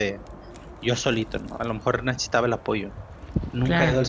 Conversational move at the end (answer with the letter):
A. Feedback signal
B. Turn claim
A